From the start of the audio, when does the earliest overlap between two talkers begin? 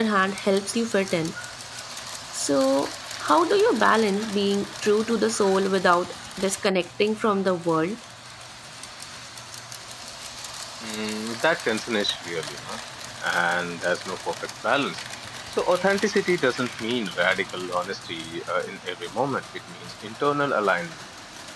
none

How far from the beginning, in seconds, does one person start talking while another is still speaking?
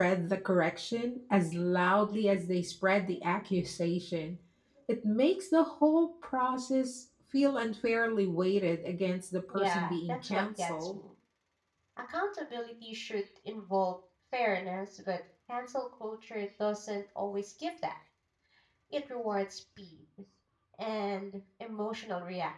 10 s

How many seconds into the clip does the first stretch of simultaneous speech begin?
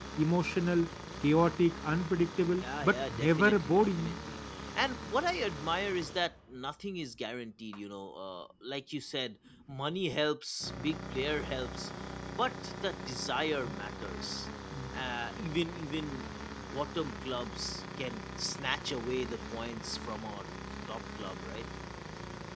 3 s

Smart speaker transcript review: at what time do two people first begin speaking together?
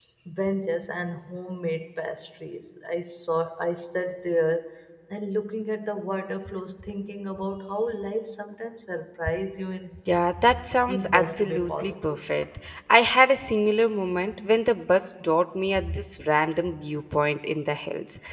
11 s

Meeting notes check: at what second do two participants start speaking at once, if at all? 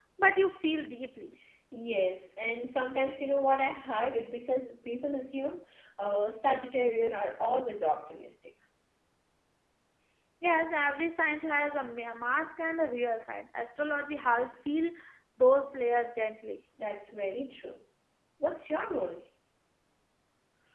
none

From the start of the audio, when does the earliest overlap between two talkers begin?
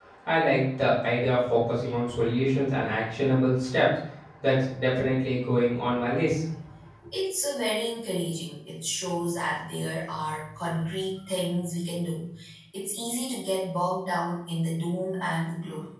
none

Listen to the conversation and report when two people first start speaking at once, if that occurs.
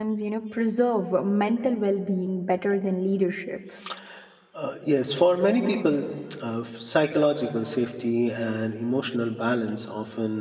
none

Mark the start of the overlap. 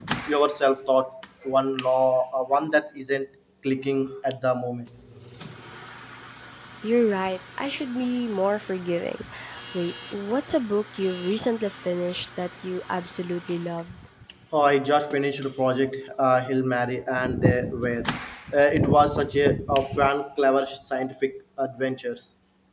none

